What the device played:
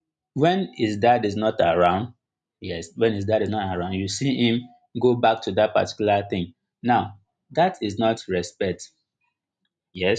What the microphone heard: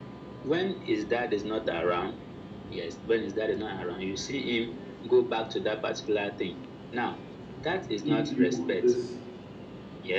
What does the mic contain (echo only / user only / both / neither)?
both